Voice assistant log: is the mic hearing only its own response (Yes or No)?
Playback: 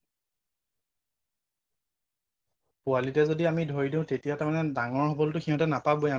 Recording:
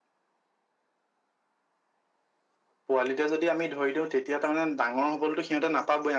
Yes